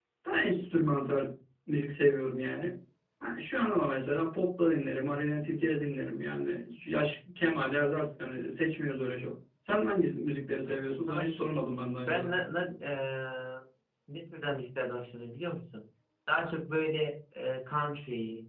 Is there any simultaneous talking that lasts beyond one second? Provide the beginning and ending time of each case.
10.6-12.4

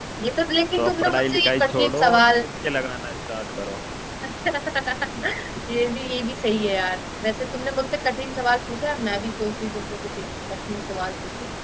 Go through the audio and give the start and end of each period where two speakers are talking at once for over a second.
0.8-2.2

